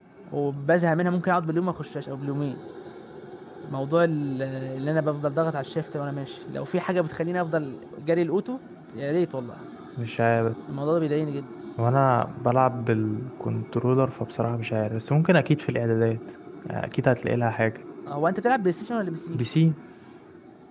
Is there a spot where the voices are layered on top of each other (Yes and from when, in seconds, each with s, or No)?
No